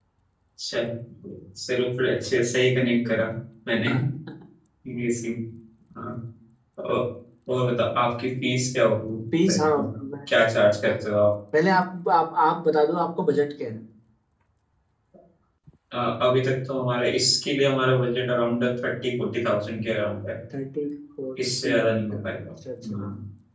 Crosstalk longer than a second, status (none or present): none